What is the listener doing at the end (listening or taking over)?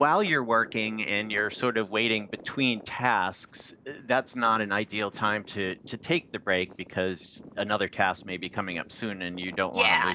taking over